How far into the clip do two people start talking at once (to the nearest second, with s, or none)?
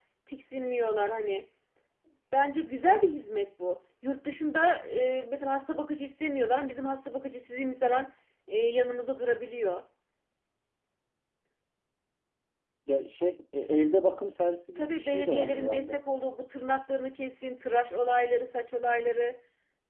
15 s